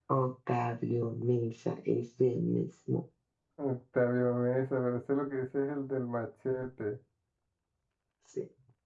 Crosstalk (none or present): none